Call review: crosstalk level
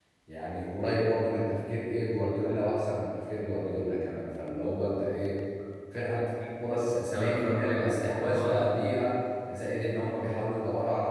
present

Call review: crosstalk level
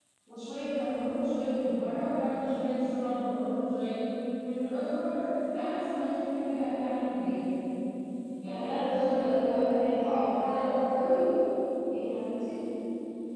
present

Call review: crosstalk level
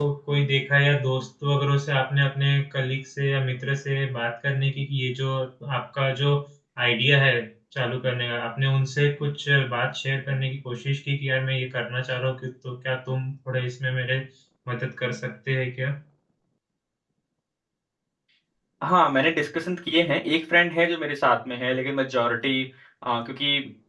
none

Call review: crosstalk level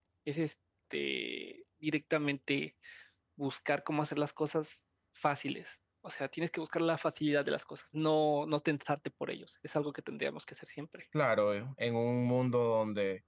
none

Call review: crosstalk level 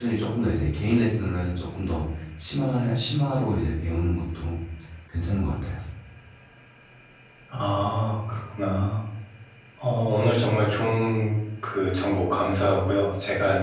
none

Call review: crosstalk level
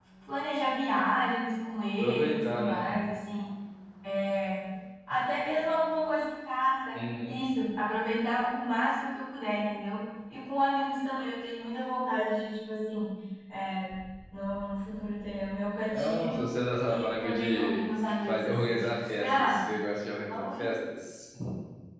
present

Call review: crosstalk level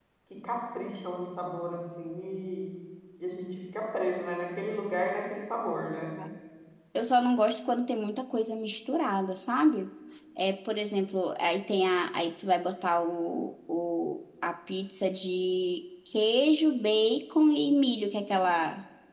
none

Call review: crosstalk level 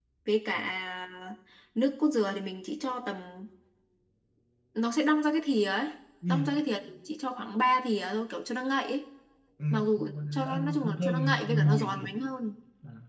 present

